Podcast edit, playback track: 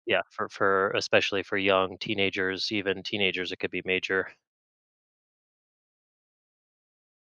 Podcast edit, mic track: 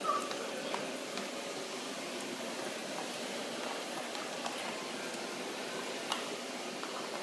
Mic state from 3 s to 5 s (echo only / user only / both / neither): neither